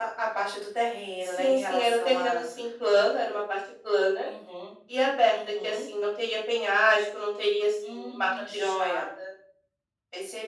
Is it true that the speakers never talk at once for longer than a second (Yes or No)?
No